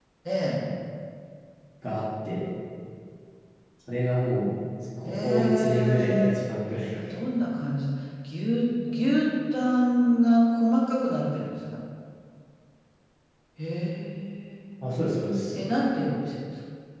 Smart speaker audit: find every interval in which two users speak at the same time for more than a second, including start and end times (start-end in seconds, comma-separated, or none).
5.0-6.5